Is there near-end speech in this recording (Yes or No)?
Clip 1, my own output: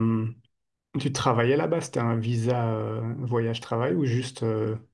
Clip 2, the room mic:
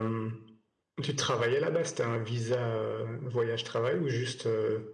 No